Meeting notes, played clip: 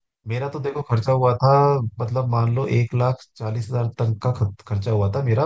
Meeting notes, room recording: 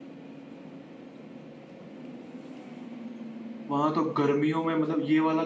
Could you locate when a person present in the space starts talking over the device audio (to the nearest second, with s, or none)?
4 s